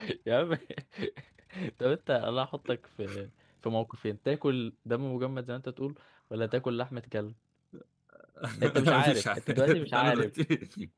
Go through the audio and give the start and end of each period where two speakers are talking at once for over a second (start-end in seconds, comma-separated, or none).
8.8-10.3